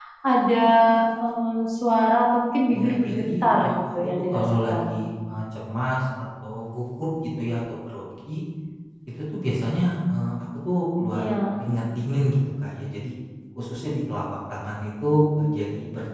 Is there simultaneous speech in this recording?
Yes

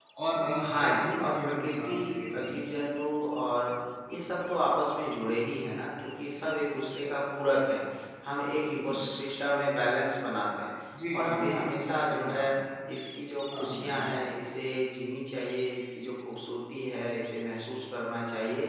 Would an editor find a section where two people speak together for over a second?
Yes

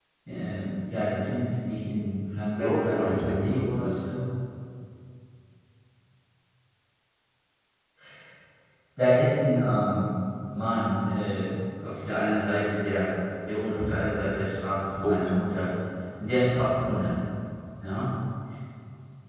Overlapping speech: Yes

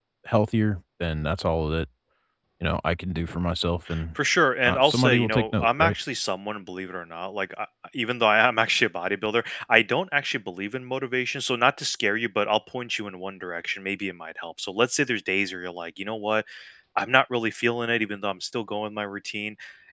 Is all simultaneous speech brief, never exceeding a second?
No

